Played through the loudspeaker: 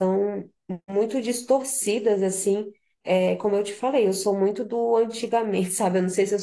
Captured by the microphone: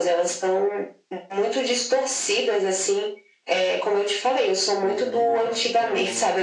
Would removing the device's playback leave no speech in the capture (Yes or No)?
No